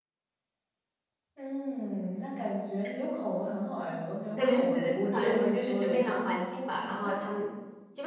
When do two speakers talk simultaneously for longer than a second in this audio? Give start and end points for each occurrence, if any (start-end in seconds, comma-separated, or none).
4.4-6.0